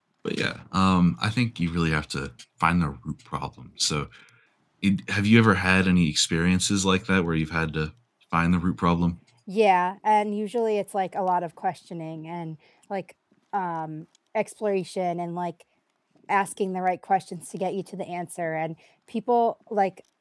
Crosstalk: none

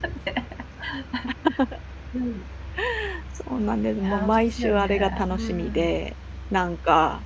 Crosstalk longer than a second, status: present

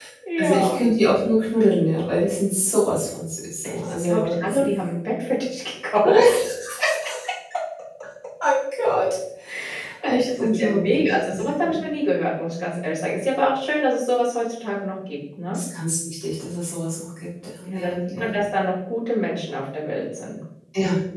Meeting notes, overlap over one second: present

